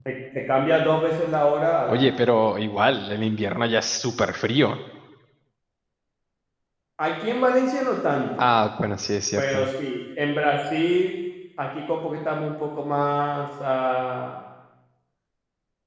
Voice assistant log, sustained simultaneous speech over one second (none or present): none